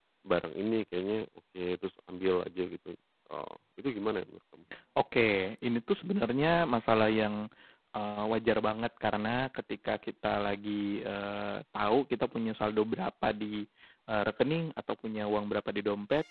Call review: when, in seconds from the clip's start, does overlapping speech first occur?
none

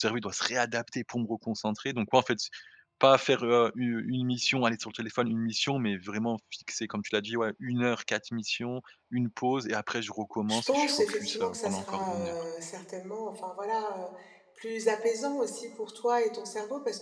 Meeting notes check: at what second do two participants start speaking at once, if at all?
10 s

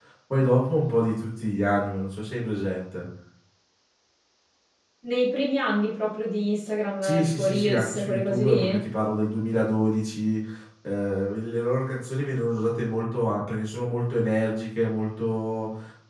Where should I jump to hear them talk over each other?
7 s

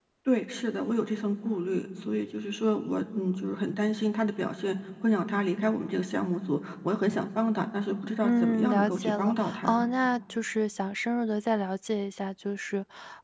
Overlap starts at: 8 s

